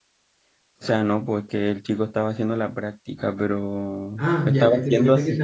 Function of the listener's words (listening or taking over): taking over